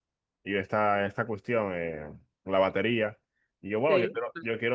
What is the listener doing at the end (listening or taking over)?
listening